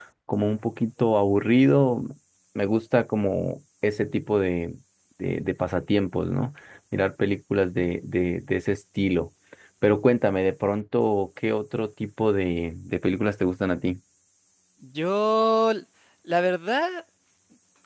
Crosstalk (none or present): none